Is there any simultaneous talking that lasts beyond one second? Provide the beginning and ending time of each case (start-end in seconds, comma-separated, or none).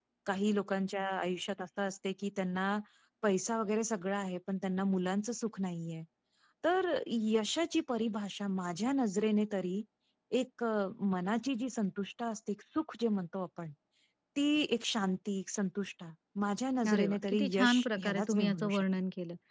16.9-18.8